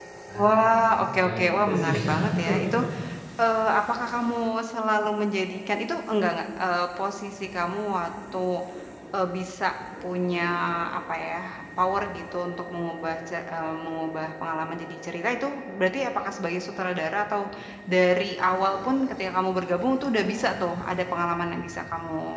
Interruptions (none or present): present